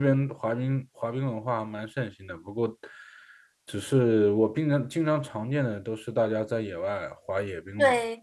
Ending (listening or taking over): taking over